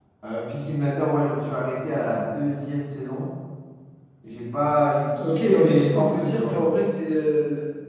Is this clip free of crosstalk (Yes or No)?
No